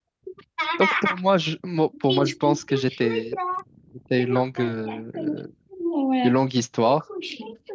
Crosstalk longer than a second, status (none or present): present